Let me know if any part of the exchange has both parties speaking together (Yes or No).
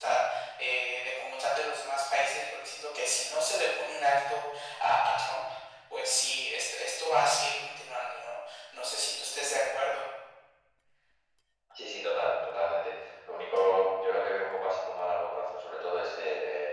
No